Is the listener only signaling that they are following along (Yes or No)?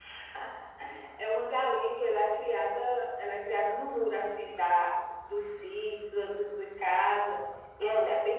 Yes